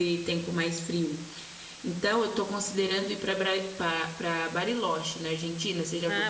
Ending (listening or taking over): taking over